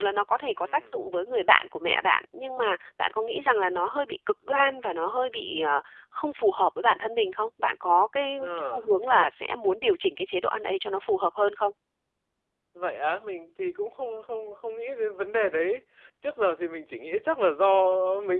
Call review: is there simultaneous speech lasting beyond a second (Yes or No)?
No